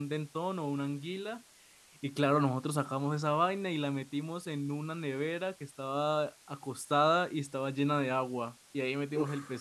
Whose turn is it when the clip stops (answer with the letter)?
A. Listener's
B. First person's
B